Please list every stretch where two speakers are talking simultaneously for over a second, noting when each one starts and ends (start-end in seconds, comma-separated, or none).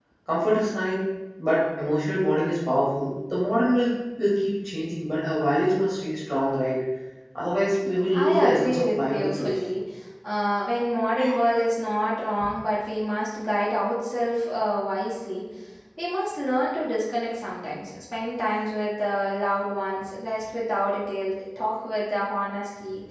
8.1-9.6